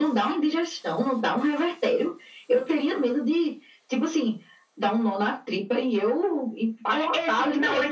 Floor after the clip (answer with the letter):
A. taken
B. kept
A